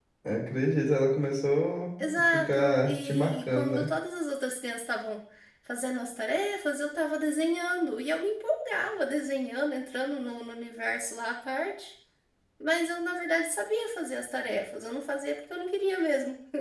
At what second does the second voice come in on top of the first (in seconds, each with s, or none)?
2.0 s